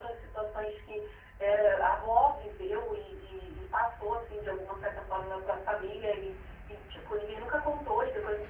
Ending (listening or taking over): listening